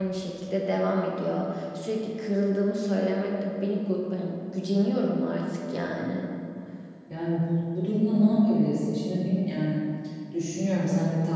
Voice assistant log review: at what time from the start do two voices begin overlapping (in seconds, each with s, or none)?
none